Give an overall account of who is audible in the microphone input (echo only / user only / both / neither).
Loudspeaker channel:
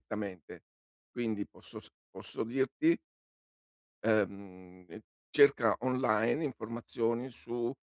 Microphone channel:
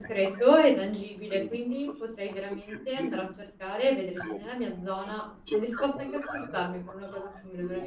both